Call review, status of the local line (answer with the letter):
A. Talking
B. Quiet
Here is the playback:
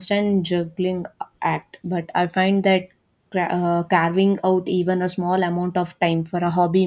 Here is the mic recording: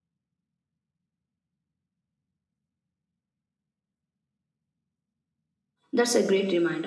A